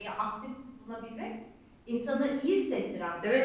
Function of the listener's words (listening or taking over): taking over